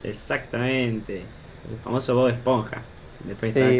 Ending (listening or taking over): taking over